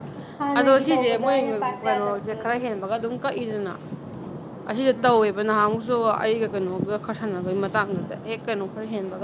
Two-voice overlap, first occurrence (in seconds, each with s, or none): 0.6 s